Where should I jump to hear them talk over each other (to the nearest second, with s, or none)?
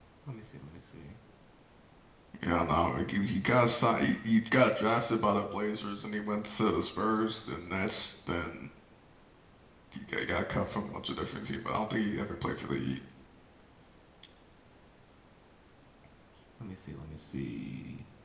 none